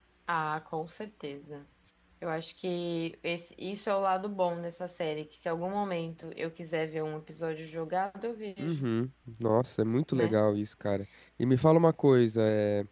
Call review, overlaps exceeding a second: none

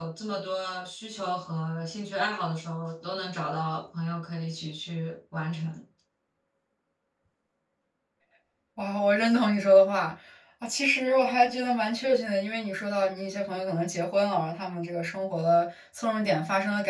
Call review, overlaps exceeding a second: none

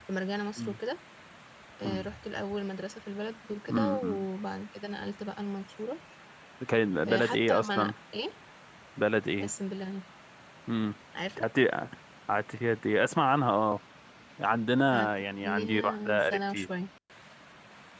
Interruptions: present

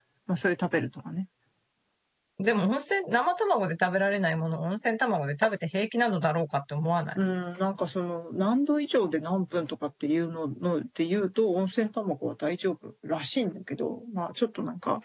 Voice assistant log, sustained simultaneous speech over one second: none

